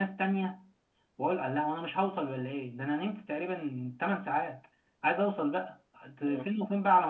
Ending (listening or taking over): listening